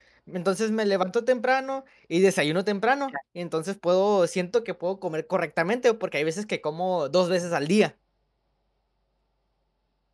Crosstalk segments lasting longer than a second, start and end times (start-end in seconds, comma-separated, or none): none